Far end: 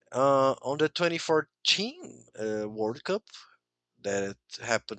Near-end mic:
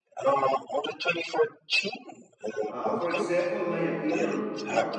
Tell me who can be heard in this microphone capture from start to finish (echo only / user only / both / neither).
both